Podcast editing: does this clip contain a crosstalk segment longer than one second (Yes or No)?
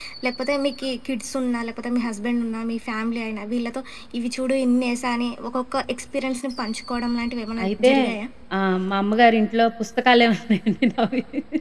No